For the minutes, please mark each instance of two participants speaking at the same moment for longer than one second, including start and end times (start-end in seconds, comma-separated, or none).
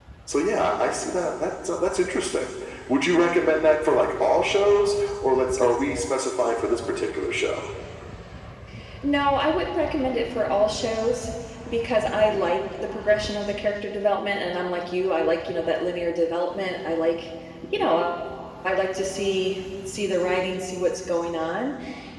none